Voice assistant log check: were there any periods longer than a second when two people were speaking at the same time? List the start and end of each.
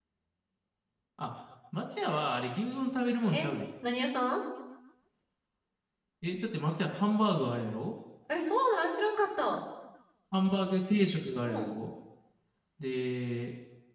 none

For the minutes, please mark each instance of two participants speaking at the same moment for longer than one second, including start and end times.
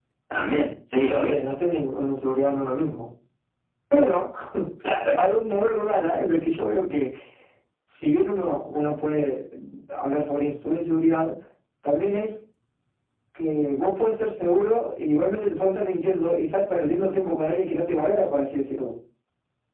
none

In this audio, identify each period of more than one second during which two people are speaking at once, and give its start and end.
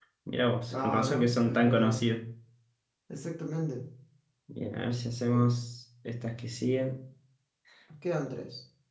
0.7-2.0

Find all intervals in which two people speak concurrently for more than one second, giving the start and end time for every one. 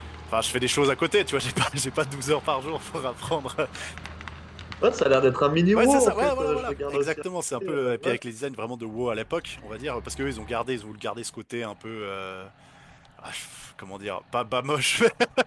5.8-7.2

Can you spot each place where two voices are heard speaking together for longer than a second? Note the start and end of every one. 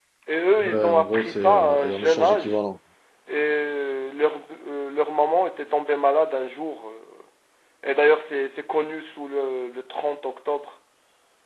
0.6-2.6

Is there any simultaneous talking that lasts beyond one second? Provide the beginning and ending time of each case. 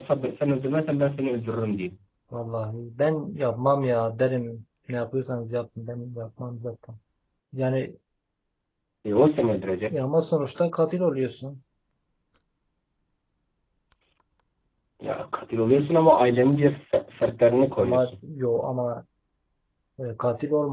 none

